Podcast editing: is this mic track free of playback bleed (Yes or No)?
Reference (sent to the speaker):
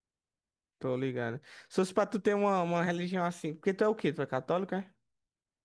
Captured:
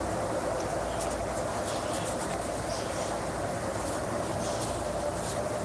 Yes